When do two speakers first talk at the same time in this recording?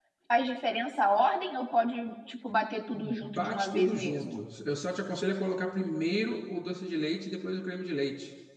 2.9 s

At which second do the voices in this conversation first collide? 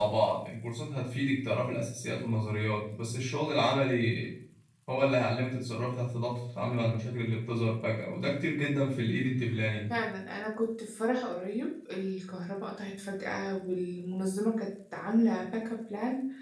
none

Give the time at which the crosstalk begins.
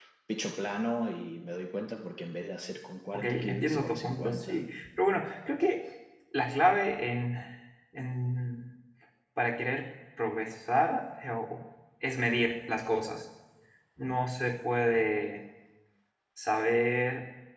3.1 s

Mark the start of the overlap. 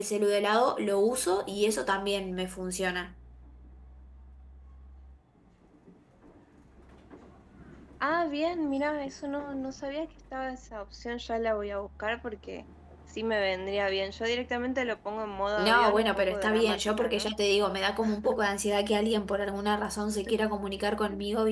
15.6 s

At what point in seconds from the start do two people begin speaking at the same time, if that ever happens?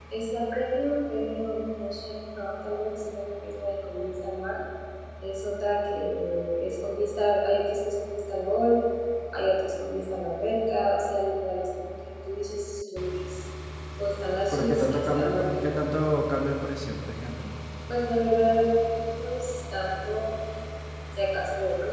14.5 s

